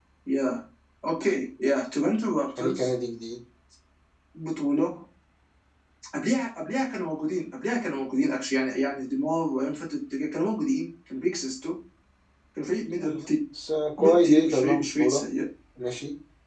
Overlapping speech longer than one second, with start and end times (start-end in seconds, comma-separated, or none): 14.0-15.2